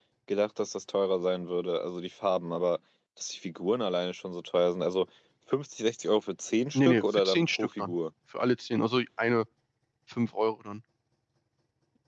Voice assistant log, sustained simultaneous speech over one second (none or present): present